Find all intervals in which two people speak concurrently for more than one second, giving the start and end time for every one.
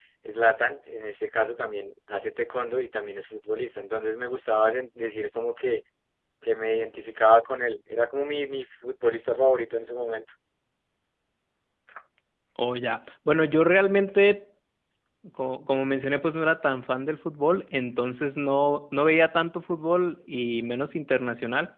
none

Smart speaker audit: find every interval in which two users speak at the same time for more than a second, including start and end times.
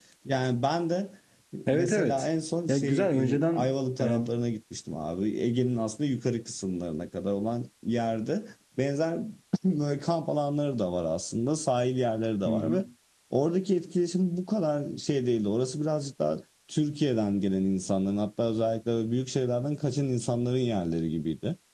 2.7-4.2

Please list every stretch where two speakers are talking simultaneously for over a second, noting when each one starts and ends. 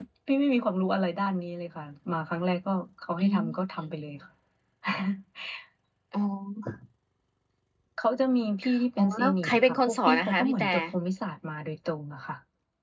9.0-10.7

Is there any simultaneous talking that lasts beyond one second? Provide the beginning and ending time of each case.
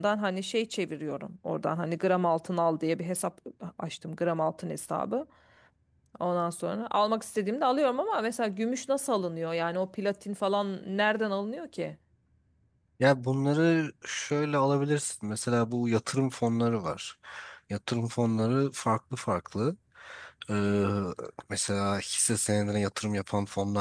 none

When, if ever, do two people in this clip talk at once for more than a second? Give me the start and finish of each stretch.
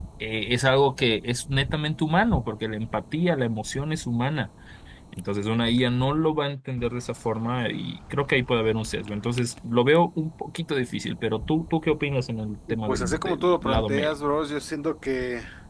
12.9-14.1

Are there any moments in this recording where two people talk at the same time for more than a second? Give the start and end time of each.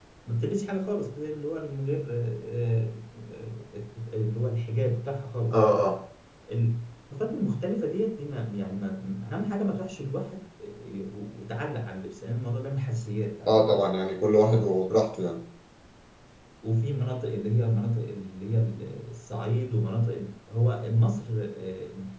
none

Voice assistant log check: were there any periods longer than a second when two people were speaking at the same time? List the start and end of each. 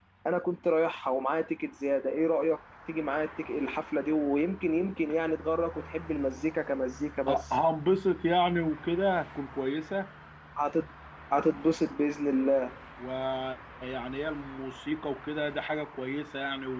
none

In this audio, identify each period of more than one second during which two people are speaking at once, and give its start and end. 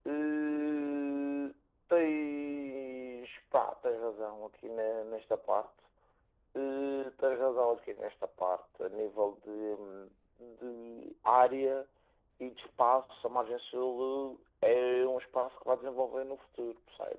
none

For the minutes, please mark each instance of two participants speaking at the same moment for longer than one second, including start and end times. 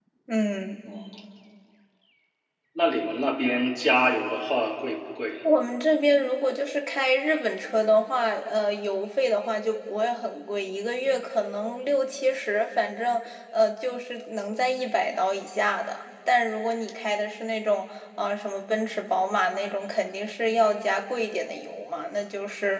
none

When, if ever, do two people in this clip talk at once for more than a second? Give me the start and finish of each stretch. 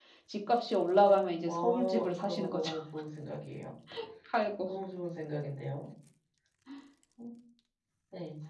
1.5-2.7

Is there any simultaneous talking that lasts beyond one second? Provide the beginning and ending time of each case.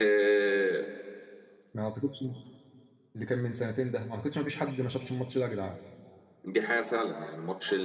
none

